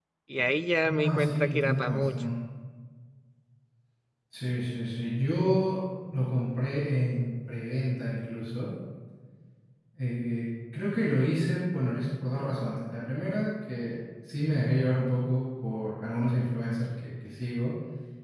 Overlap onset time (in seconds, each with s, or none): 0.8 s